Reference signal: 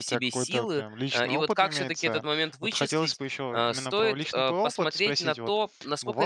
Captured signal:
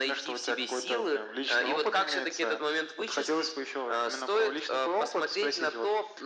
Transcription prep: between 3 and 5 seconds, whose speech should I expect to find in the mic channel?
echo only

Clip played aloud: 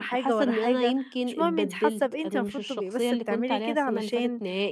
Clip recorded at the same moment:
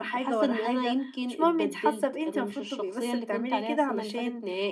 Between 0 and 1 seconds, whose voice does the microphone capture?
echo only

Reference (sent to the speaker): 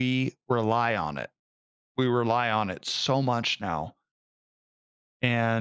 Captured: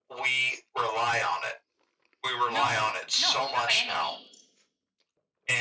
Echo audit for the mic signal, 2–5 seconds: both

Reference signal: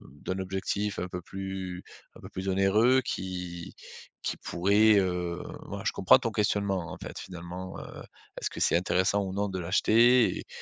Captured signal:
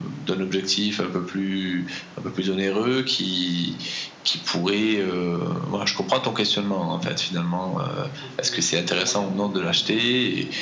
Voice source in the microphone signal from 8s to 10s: both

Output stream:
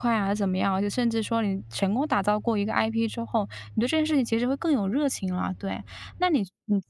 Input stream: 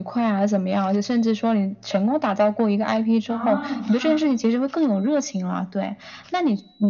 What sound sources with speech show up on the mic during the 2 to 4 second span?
both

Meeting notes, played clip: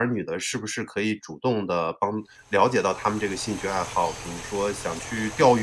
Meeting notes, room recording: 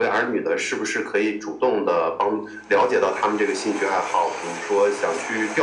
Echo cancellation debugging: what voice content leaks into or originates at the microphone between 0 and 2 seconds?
echo only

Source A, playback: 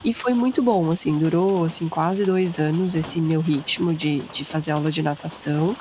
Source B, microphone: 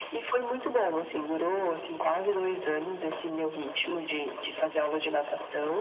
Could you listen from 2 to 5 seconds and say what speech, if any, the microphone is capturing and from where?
echo only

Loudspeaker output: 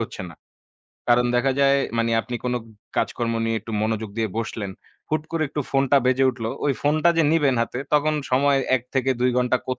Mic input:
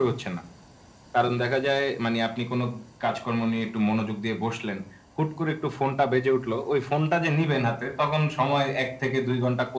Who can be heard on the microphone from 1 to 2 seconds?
echo only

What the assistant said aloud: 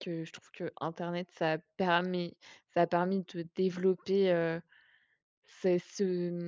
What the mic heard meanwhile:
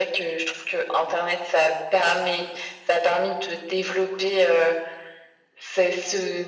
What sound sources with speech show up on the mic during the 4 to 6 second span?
echo only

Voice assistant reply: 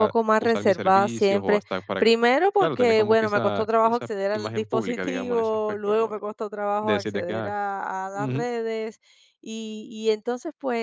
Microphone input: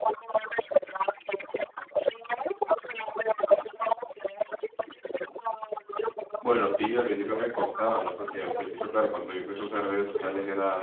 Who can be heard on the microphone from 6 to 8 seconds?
both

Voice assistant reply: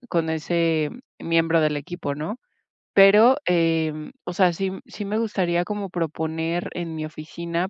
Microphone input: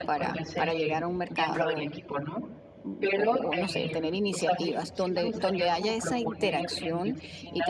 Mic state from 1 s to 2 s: both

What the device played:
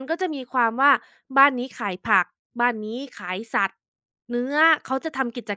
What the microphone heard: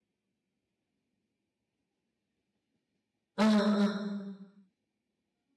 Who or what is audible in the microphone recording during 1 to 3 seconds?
neither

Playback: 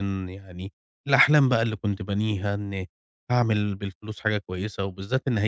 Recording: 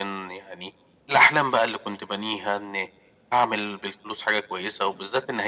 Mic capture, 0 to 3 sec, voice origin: echo only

